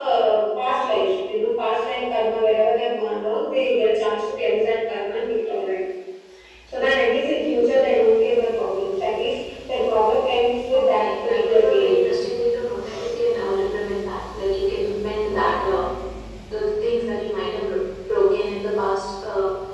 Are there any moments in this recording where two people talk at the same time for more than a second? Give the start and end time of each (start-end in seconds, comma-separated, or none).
10.7-12.1